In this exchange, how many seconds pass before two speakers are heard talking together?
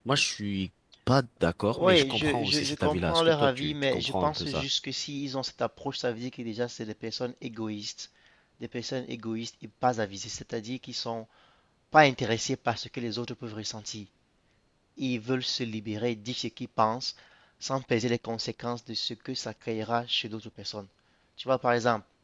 1.7 s

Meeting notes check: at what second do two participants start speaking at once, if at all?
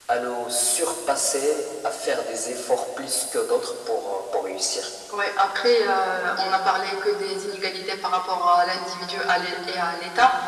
none

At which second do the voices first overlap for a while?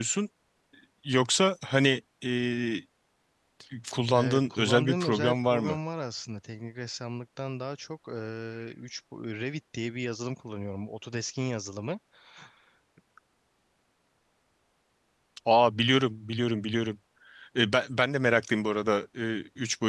4.2 s

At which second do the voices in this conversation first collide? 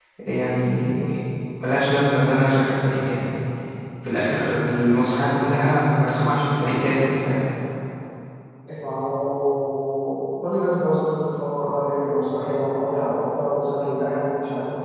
none

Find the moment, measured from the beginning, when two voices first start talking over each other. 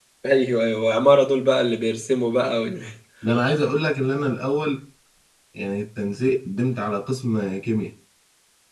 none

